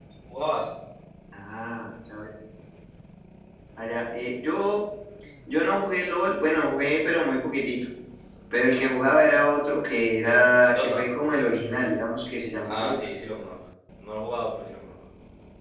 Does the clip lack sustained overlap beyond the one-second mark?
Yes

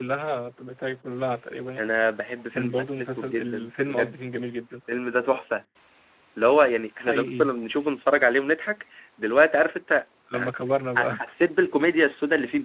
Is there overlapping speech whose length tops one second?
Yes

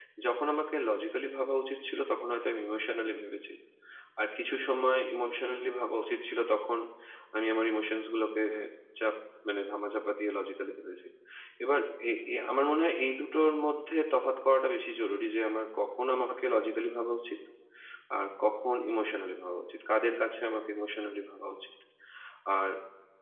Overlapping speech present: No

